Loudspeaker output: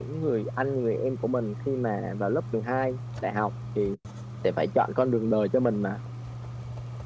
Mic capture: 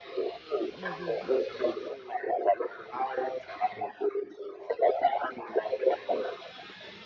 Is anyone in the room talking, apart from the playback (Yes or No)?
Yes